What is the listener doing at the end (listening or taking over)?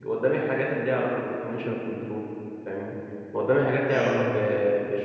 listening